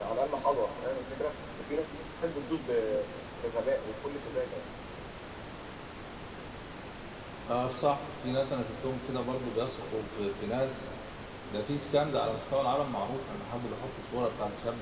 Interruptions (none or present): none